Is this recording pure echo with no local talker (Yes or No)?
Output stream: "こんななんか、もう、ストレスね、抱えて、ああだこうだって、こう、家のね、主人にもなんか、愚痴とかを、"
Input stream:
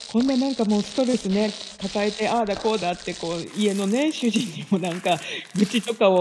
Yes